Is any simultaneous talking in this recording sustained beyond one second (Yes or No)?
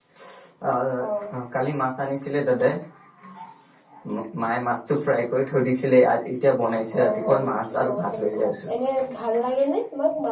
Yes